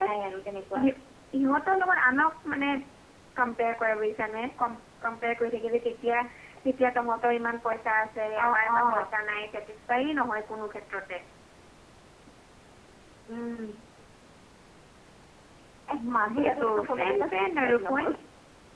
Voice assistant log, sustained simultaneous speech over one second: present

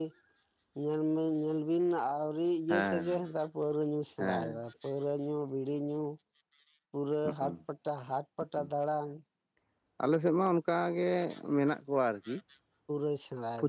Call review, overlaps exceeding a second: none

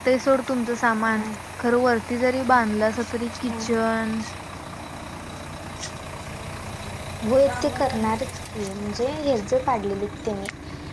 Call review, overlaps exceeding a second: none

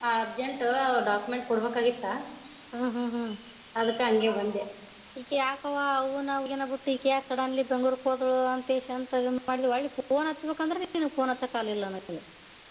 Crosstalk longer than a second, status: none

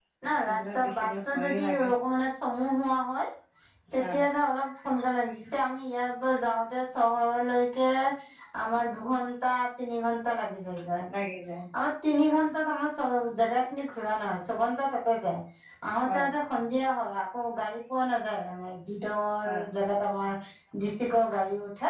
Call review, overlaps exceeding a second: present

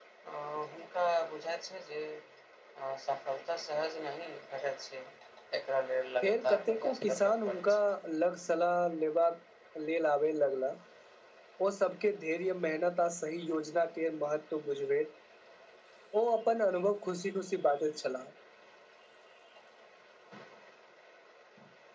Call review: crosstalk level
present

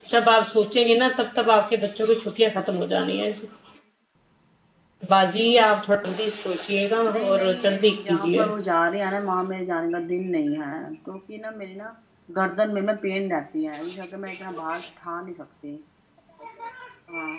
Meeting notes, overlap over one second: present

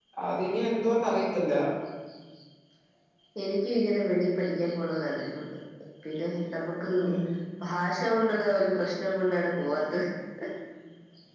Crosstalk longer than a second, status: none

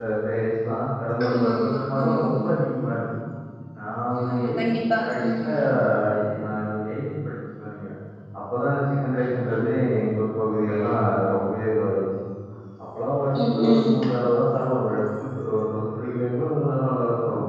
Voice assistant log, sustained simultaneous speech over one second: present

